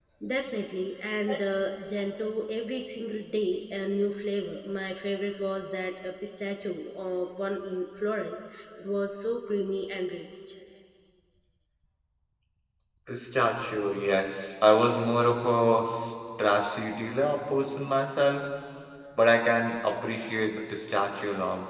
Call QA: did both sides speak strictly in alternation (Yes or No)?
Yes